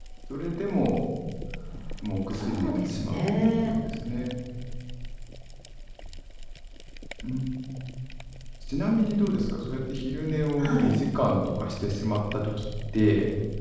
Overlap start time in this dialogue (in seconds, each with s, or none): 2.4 s